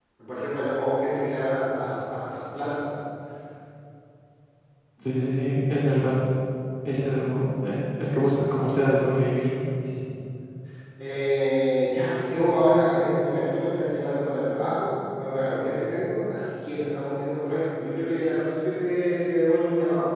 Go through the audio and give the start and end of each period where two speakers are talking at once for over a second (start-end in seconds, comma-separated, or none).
none